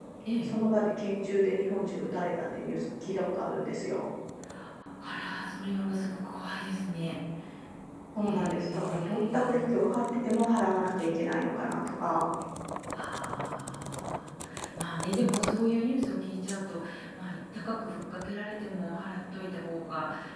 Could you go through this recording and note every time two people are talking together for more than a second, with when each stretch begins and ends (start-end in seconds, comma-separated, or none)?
8.2-9.5